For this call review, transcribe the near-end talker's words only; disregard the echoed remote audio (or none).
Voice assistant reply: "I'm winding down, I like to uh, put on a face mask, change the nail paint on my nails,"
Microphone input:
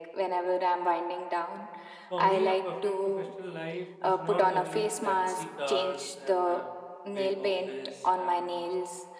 For me, a perfect professional life is not only fancy cars and a big office and